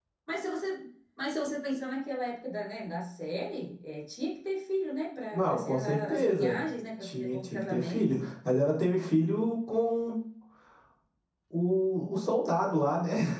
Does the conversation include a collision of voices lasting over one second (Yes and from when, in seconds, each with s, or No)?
Yes, from 5.3 s